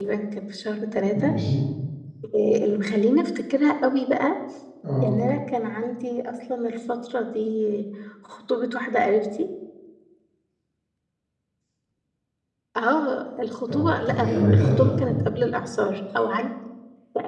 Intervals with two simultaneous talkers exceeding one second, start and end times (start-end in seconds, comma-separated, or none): 13.7-15.1